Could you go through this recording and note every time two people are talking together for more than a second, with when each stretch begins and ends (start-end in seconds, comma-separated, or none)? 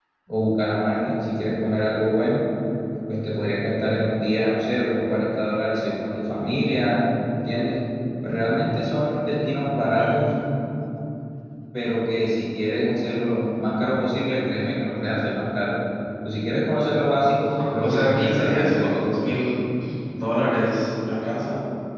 17.8-19.0